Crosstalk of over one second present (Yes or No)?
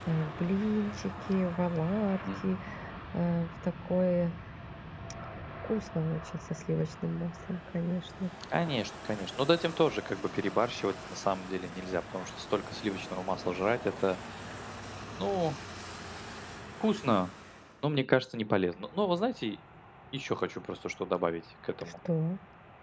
No